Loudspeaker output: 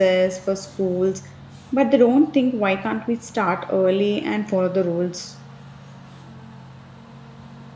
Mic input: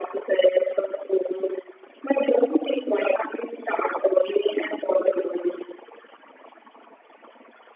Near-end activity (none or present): none